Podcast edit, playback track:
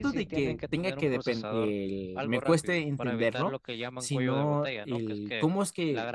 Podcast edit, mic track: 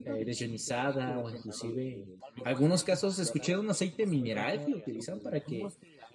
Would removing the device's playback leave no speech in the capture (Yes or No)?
No